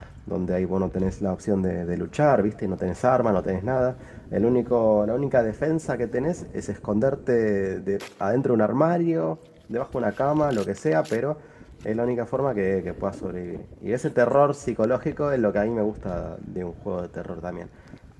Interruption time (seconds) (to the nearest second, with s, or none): none